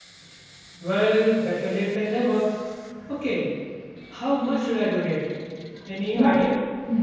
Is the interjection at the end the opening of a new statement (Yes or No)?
Yes